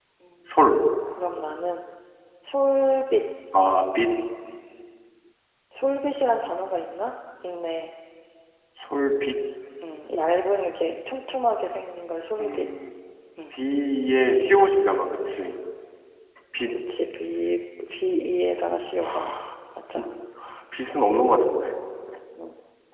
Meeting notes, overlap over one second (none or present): none